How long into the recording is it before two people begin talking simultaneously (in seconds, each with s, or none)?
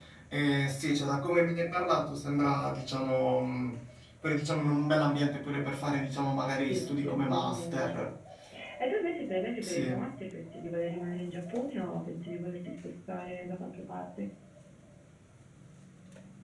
6.7 s